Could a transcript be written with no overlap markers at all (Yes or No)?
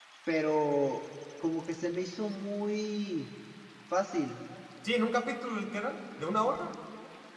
Yes